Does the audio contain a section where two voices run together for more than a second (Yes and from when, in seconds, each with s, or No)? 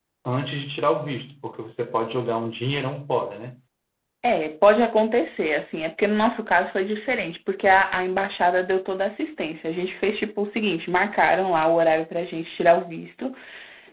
No